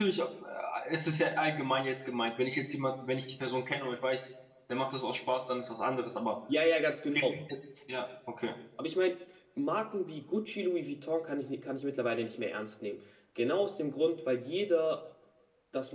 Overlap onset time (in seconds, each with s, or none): none